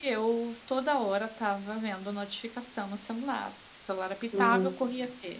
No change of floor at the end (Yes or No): Yes